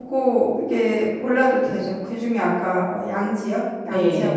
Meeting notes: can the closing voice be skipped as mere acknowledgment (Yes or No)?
No